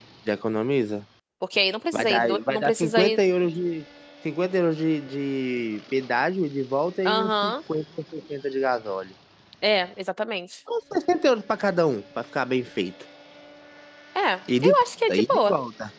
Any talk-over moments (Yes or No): Yes